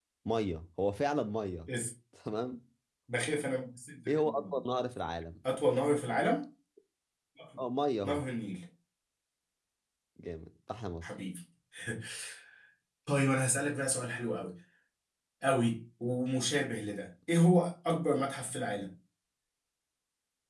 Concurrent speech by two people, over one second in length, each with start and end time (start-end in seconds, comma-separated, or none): none